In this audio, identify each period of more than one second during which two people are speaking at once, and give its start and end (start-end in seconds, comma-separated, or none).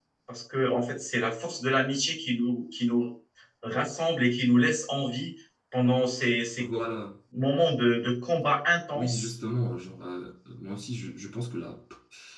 none